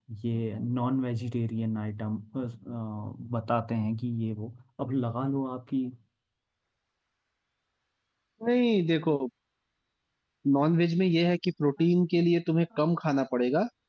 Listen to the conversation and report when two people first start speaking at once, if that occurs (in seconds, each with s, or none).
none